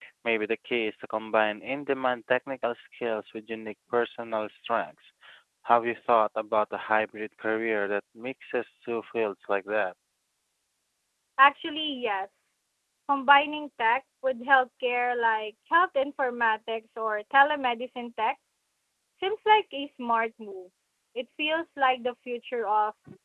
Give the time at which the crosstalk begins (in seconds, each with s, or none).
none